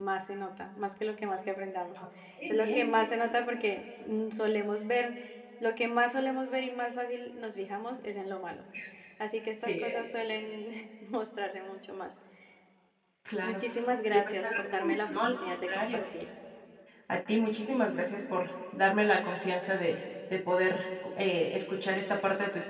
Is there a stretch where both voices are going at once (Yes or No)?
Yes